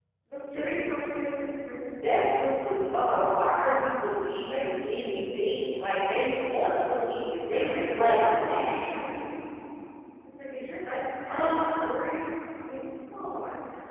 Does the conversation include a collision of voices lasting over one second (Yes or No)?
Yes